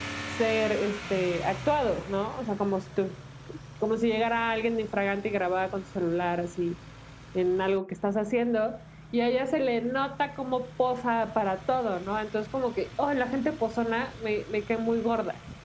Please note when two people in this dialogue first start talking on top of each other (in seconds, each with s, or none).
none